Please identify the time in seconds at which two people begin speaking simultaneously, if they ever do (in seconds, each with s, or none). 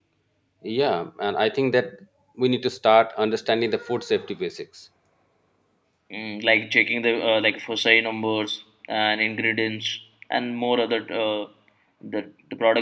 none